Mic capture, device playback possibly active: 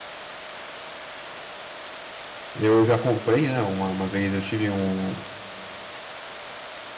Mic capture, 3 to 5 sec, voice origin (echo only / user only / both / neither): user only